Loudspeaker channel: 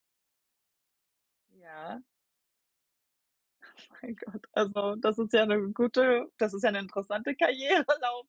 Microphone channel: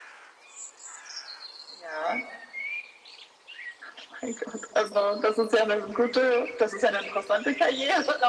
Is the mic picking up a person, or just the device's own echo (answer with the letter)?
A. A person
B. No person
B